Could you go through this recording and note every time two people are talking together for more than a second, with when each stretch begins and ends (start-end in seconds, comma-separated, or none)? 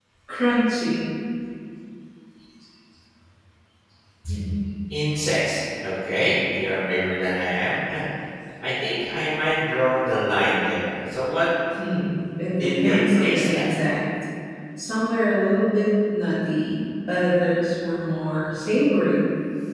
12.5-13.9